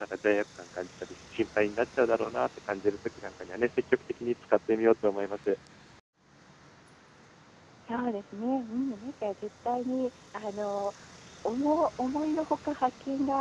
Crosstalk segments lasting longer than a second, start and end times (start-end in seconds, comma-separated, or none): none